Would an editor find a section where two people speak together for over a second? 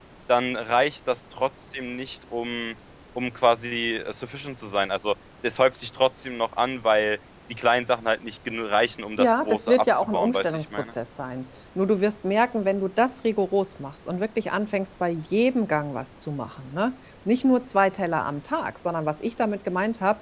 Yes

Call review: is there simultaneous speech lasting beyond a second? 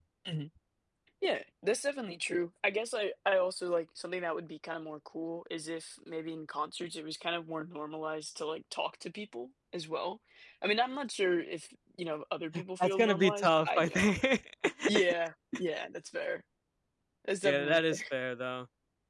Yes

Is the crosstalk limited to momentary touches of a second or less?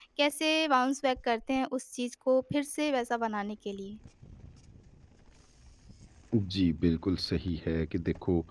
Yes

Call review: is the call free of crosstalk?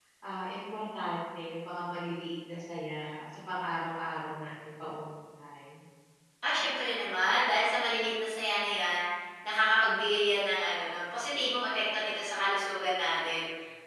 Yes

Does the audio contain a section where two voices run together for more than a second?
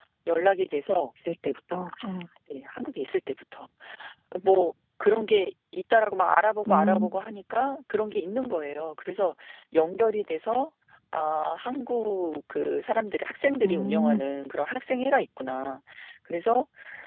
No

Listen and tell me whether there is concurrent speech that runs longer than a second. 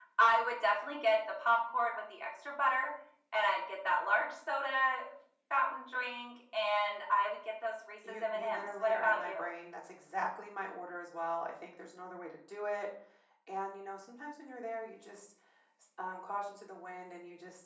Yes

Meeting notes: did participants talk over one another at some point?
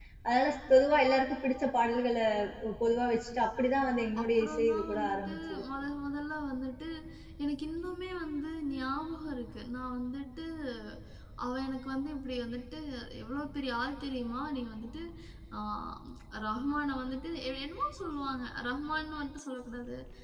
Yes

